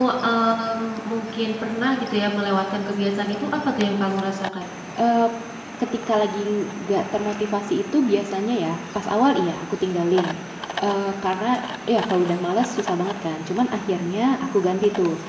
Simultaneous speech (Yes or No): No